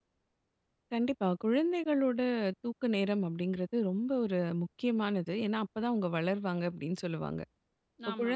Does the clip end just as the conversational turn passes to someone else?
No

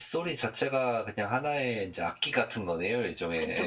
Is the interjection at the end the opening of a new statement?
Yes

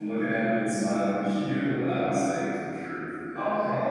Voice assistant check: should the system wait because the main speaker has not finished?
No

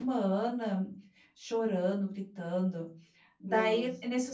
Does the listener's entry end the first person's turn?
No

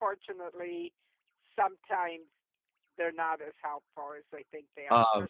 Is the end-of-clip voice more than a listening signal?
No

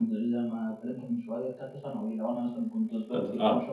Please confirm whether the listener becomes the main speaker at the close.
No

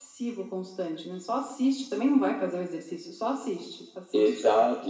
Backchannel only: No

